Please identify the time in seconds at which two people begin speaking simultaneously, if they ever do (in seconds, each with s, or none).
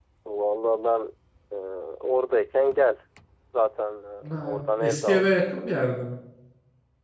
4.3 s